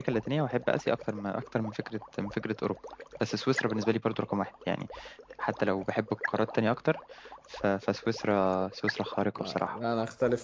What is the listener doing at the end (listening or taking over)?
taking over